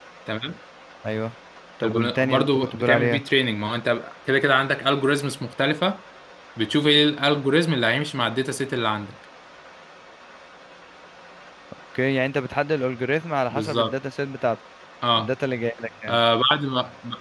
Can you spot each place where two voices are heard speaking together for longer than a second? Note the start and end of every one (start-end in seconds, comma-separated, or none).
1.8-3.2